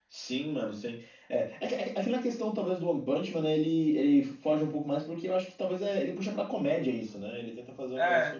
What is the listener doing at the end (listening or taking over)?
listening